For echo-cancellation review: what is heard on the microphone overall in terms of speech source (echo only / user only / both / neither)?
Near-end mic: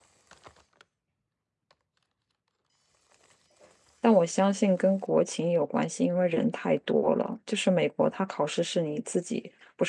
user only